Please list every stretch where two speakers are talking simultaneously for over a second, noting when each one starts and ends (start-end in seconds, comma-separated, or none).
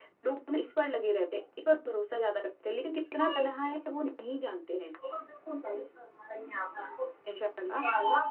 none